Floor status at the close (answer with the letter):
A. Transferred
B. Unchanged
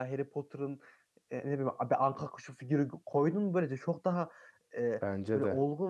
B